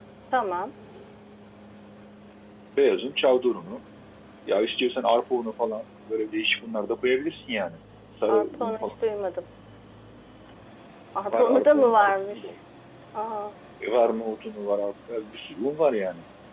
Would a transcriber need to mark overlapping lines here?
Yes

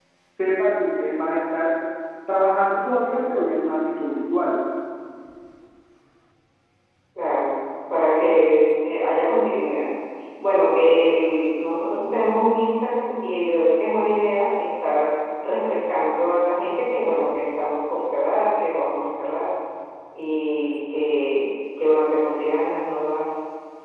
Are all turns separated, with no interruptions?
Yes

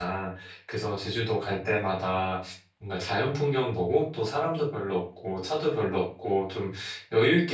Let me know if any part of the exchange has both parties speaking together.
No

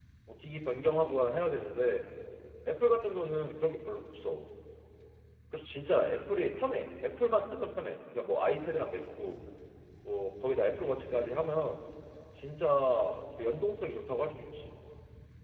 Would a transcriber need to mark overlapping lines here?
No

